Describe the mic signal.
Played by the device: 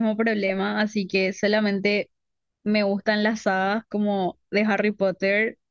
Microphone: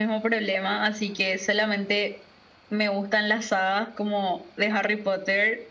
echo only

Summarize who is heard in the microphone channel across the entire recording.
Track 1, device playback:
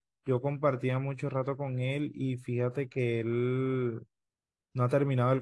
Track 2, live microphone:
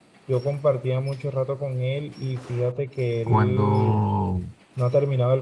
both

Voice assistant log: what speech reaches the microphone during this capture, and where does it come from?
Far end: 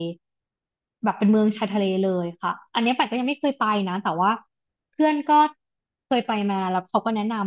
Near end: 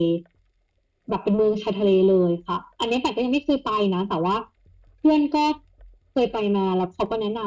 echo only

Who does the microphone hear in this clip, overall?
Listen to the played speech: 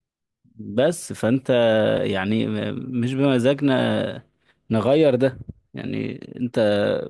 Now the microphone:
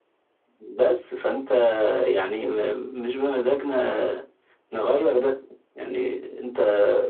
echo only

